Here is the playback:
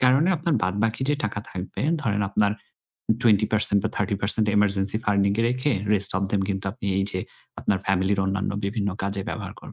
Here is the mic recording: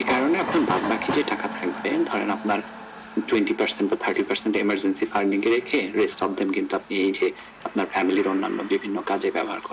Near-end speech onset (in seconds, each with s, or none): none